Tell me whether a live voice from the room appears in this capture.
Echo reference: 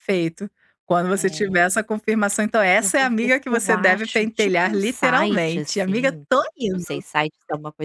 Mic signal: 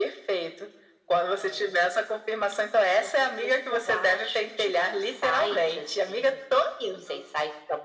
No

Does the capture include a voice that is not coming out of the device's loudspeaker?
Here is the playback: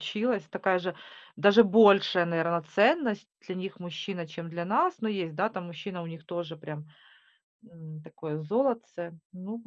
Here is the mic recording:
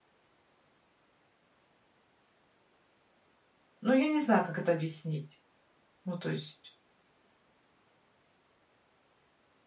Yes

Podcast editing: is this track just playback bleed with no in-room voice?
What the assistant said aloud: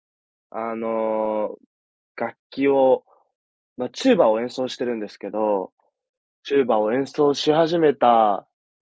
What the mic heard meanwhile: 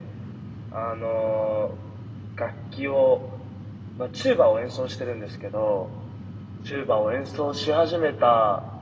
Yes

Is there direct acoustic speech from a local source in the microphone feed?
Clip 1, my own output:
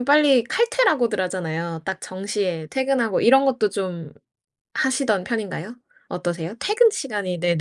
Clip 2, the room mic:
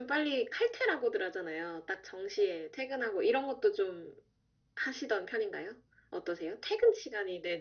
No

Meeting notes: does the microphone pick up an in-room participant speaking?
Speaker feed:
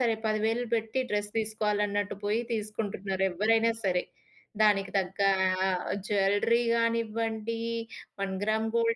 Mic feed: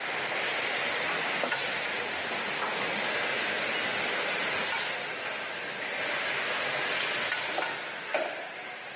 No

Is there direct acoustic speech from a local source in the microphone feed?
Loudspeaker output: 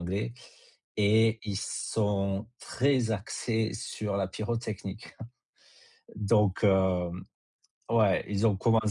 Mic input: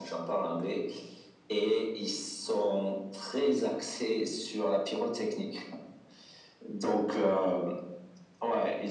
No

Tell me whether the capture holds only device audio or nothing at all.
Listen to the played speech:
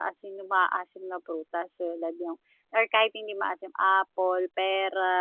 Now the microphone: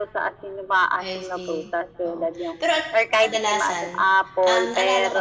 No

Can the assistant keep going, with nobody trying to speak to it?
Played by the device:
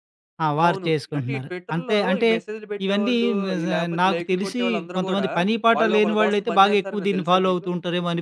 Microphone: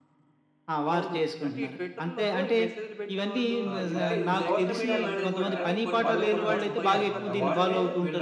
No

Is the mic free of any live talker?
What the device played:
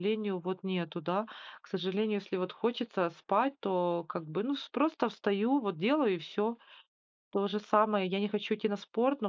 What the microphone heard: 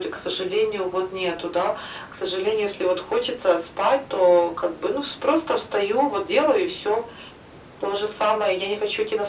Yes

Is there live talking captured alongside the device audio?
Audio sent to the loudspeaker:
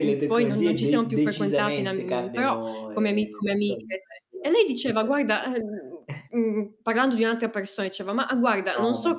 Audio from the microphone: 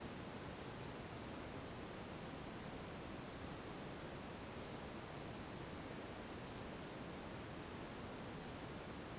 No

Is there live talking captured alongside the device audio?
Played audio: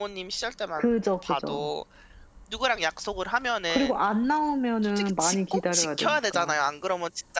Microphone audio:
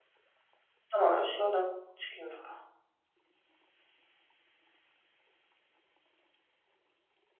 Yes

